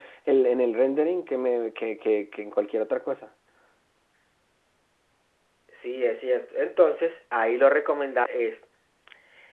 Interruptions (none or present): none